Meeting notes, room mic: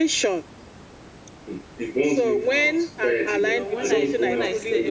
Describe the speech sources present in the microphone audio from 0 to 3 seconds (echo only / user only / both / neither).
echo only